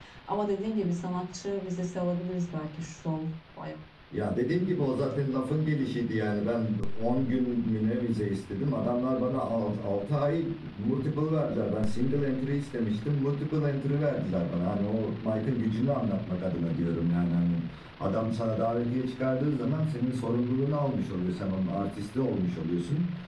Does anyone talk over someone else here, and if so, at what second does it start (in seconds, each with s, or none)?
none